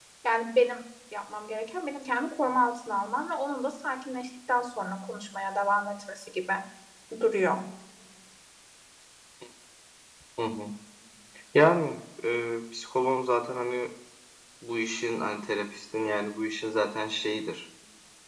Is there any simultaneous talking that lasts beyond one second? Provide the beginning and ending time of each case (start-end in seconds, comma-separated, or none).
none